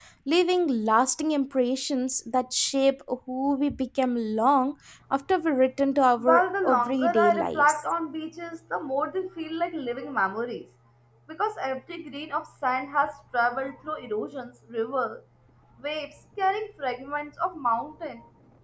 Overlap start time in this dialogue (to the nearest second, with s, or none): 6 s